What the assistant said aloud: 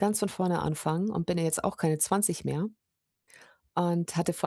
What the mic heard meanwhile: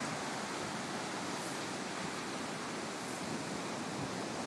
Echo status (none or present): none